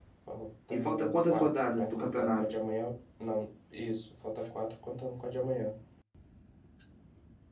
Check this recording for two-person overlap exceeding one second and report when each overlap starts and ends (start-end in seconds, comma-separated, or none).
0.7-2.5